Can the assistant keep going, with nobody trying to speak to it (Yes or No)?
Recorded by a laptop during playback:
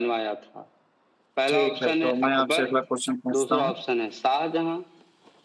No